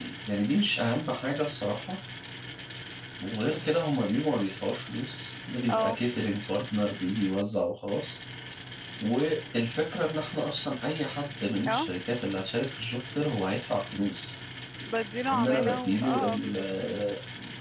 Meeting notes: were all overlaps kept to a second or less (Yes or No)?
No